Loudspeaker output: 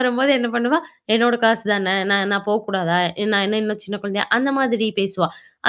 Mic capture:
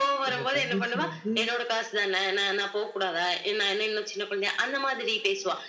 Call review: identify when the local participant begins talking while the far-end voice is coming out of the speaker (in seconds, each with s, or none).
0.3 s